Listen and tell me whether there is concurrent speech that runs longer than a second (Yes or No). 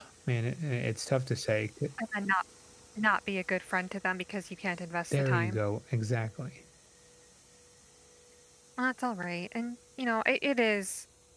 No